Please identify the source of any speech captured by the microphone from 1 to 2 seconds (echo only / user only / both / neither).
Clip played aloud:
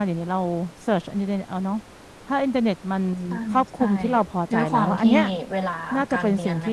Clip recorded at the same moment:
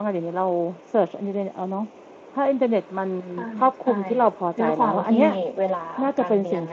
echo only